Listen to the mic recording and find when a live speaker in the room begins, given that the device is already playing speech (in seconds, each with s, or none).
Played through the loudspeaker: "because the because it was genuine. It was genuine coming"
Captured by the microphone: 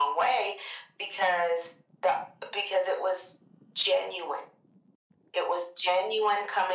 none